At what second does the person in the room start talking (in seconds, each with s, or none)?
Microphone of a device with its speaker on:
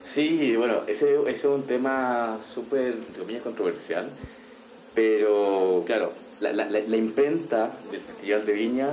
none